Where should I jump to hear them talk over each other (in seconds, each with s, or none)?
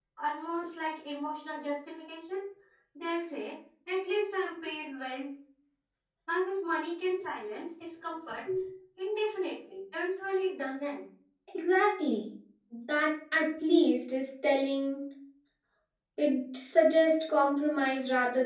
none